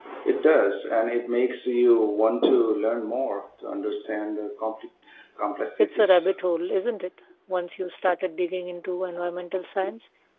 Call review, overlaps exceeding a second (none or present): none